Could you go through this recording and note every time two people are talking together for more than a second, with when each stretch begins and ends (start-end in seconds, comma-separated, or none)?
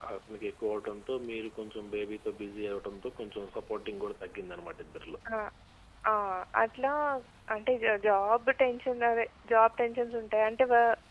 none